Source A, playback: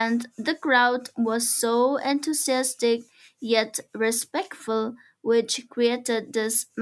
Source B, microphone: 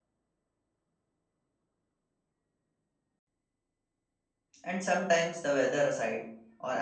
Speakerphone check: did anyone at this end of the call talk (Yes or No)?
Yes